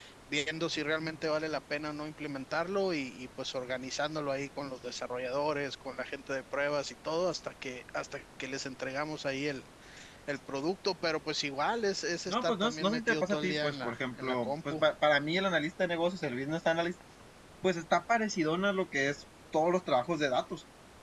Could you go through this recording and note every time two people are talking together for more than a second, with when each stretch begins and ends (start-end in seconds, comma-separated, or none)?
12.3-14.8